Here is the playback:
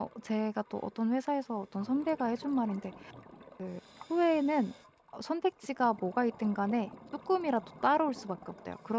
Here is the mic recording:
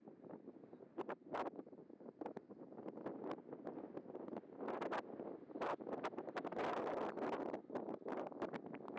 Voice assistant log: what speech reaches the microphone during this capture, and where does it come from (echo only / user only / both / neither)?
neither